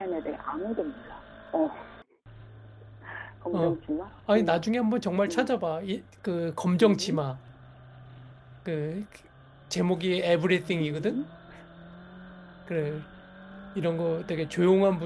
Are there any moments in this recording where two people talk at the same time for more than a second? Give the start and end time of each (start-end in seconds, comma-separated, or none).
none